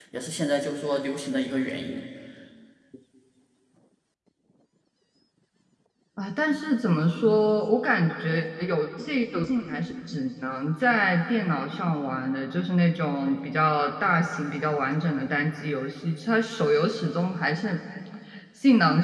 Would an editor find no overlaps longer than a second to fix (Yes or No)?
Yes